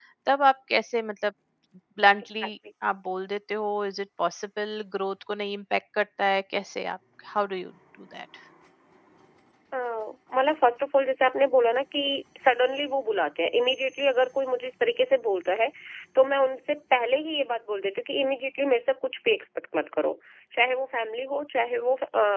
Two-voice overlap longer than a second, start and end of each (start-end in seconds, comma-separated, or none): none